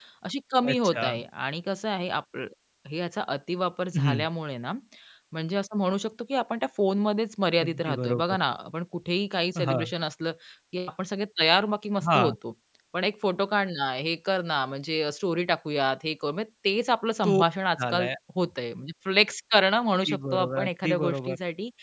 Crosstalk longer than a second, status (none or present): present